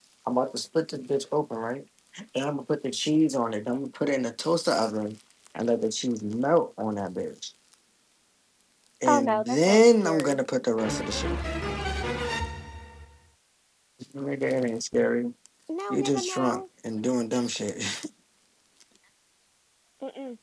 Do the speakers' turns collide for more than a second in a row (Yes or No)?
Yes